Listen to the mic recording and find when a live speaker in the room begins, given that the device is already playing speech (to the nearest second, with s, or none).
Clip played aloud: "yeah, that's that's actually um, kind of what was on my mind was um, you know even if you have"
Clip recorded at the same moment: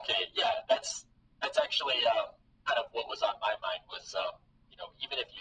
none